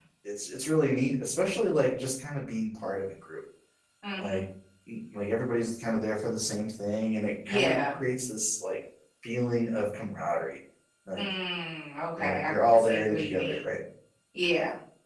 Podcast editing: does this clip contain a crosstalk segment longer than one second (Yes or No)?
Yes